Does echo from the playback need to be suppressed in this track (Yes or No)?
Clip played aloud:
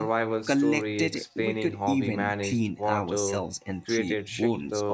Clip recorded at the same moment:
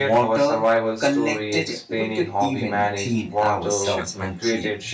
Yes